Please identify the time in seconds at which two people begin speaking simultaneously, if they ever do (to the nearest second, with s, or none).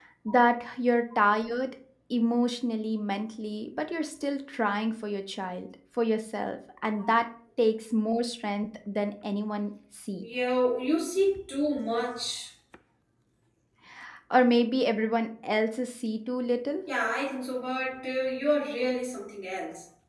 none